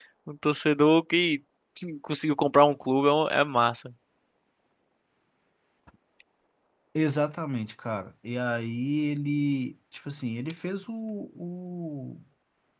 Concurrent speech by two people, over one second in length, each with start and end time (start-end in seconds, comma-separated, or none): none